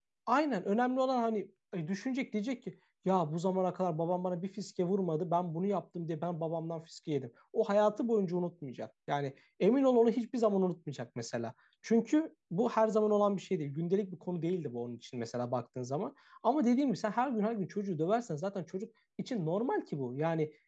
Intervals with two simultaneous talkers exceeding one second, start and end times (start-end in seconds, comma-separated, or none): none